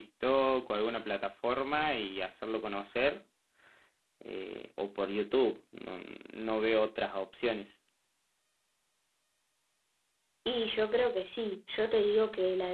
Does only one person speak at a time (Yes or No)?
Yes